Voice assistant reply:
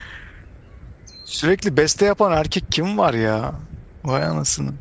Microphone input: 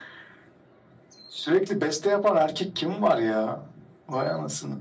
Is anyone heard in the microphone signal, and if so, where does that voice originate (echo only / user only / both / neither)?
echo only